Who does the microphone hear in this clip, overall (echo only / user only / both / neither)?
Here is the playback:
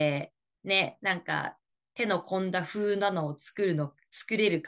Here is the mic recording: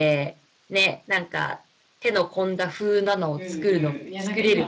both